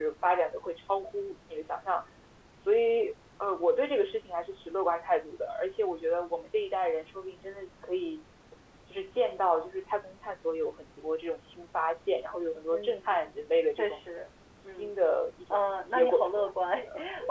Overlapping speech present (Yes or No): Yes